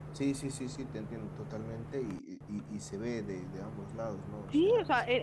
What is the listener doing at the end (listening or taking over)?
taking over